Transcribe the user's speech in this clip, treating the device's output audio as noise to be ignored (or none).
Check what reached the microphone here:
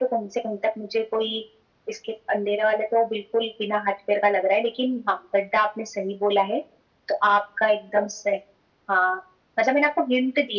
none